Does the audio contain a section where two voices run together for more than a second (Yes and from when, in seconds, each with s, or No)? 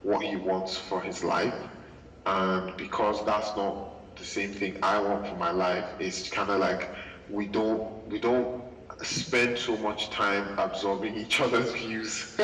No